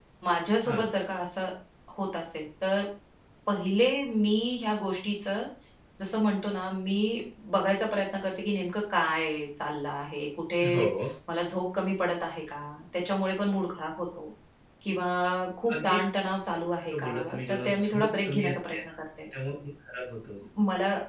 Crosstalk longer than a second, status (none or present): present